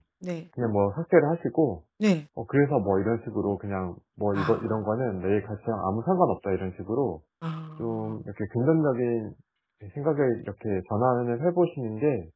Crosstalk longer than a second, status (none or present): none